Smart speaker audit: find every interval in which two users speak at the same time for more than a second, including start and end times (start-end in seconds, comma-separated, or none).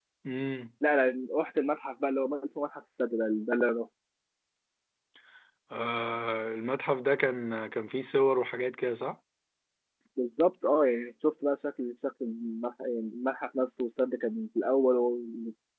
none